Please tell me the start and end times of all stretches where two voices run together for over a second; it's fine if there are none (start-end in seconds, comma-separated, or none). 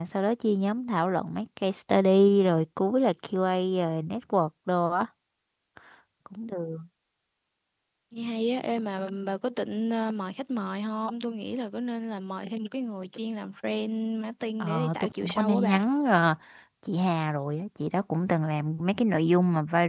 14.6-15.8